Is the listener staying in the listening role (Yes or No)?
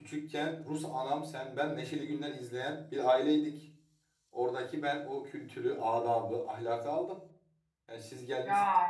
Yes